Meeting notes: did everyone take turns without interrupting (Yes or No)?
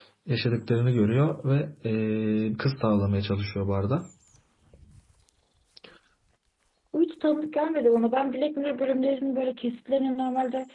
Yes